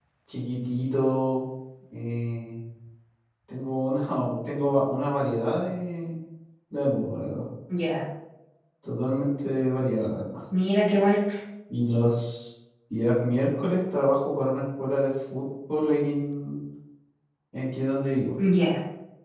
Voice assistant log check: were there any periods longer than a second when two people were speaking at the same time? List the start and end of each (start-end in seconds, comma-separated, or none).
none